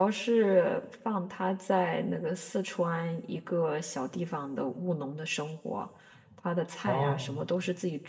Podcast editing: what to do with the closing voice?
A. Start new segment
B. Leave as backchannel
B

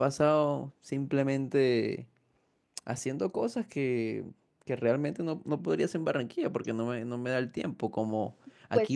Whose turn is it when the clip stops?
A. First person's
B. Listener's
A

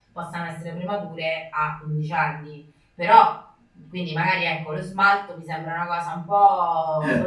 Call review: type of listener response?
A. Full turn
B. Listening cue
B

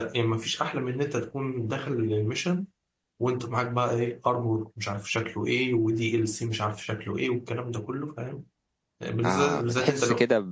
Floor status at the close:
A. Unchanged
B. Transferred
B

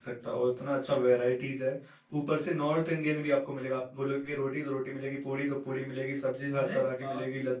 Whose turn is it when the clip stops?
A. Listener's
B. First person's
B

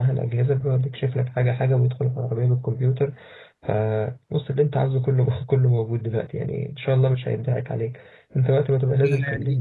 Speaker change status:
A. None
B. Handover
B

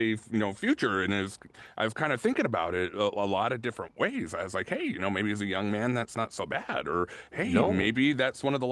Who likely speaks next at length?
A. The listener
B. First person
B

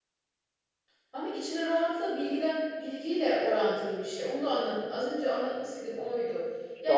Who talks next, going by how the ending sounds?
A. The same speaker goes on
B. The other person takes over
B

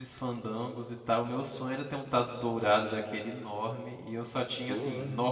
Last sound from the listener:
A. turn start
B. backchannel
B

